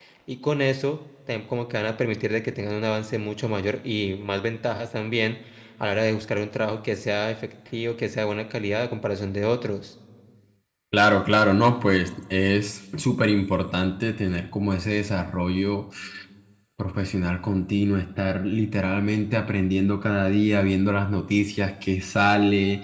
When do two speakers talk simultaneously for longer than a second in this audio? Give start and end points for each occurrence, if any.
none

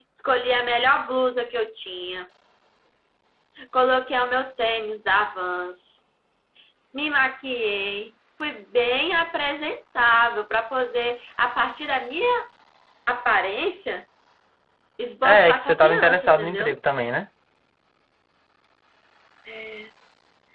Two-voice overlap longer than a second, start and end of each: 15.2-16.8

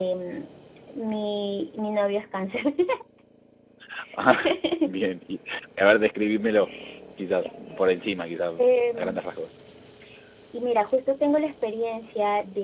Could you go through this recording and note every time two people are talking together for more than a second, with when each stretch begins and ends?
none

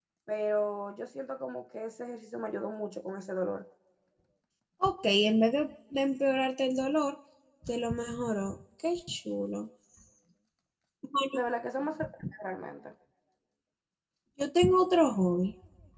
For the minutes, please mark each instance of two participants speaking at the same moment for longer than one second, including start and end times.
none

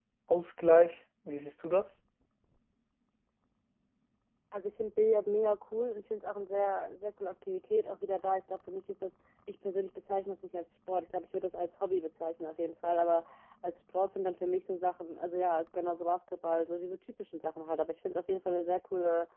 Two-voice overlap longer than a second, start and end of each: none

